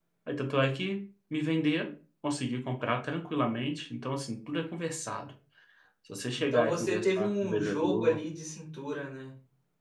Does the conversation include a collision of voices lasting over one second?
Yes, from 6.5 s

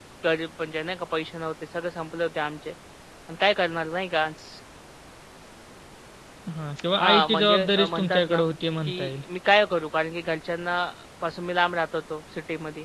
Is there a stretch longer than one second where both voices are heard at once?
Yes, from 7.0 s

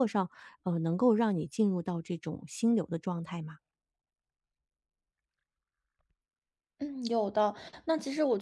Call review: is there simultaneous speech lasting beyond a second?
No

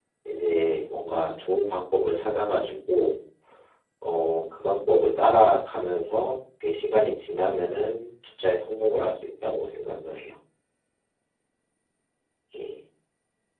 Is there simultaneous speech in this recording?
No

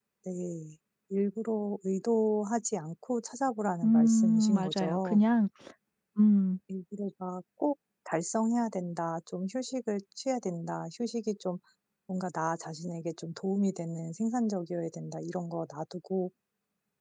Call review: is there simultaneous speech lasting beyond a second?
Yes, from 3.8 s

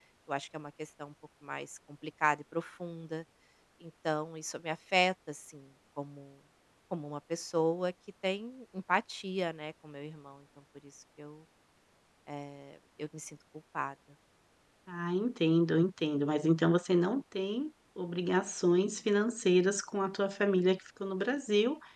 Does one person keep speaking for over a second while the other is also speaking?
No

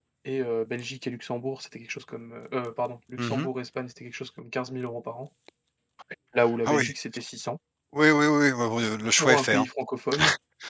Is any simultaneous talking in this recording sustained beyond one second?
No

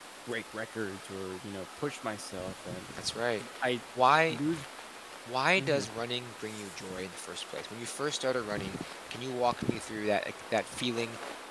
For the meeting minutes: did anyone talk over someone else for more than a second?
No

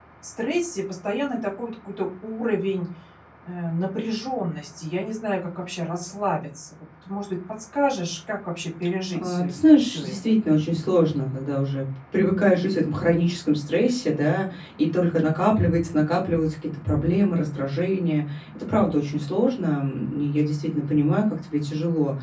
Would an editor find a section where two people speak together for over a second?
No

